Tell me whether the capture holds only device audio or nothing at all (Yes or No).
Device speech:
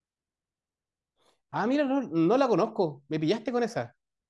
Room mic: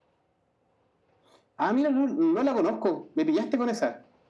Yes